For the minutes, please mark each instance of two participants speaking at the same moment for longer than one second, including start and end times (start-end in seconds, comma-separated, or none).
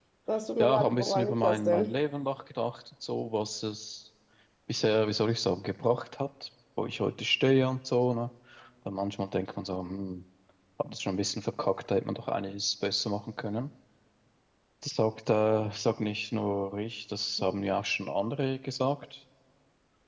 0.6-1.9